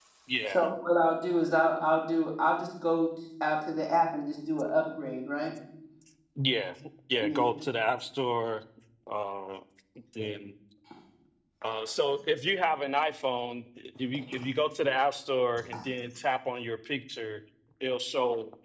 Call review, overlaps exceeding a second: none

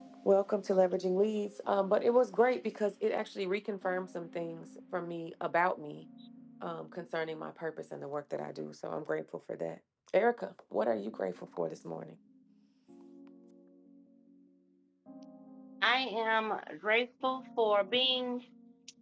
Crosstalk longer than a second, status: none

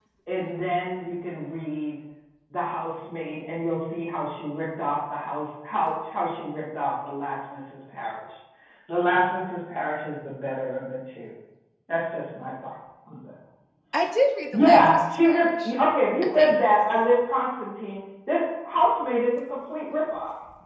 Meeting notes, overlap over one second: present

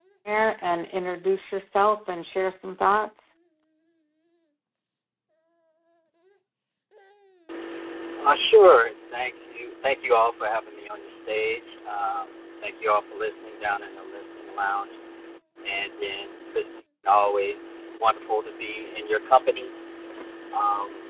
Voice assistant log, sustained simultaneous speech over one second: none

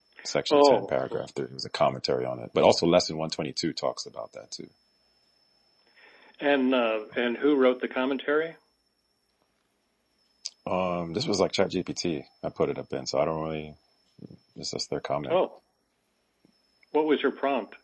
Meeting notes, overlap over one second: none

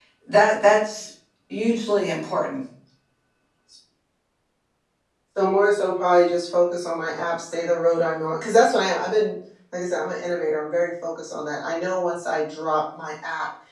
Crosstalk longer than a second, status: none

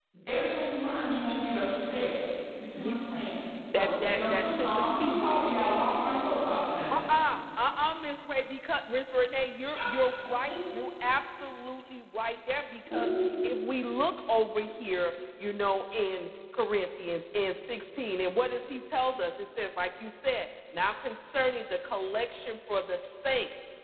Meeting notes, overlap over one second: present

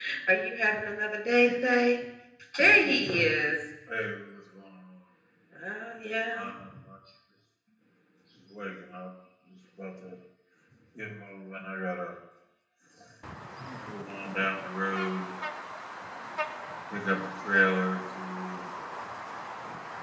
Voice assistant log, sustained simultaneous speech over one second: none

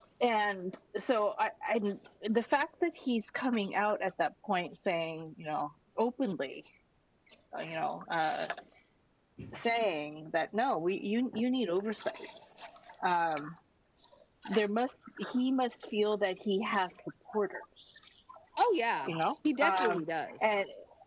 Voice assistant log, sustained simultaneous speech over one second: none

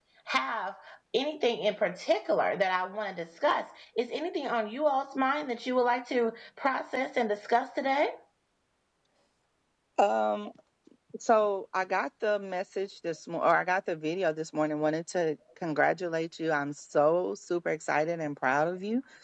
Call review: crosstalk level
none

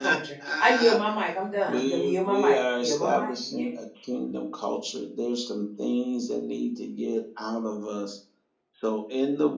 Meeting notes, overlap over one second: present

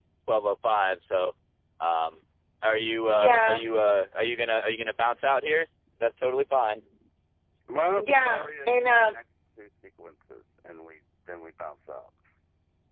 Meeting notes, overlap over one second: present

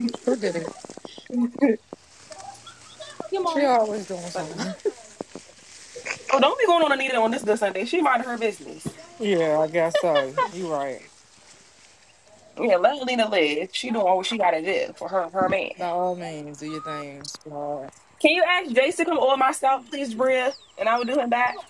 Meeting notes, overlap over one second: none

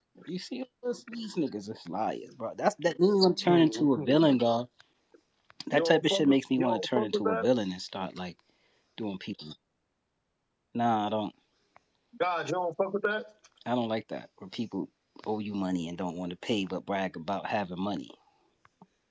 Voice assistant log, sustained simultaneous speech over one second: present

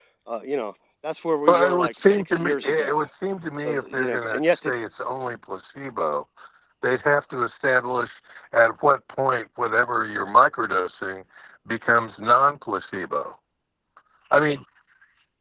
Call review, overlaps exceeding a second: present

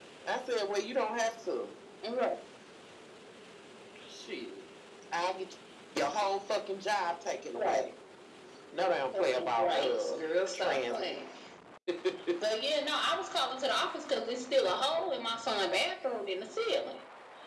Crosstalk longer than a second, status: present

